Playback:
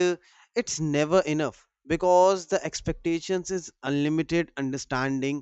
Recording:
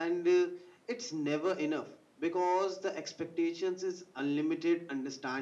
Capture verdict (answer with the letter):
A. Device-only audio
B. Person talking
A